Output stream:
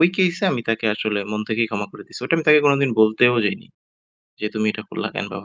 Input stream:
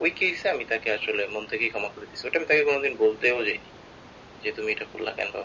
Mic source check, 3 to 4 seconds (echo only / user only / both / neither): echo only